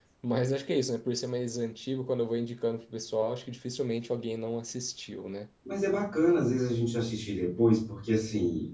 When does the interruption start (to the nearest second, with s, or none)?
none